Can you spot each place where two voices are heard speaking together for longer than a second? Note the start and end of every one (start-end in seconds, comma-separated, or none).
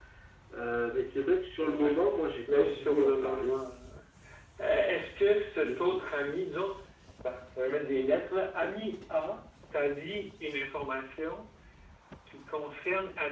2.5-3.7